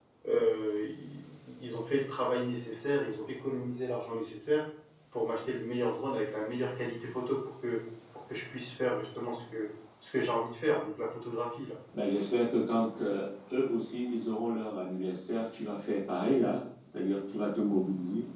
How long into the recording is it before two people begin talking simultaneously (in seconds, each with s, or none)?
none